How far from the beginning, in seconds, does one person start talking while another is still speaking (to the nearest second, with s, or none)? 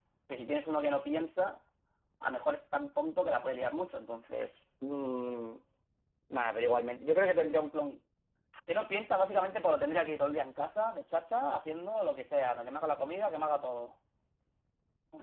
none